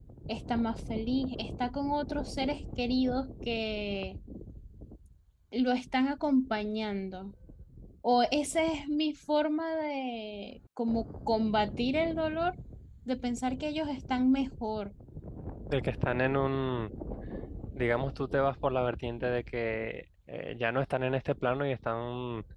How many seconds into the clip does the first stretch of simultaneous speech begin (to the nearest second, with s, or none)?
none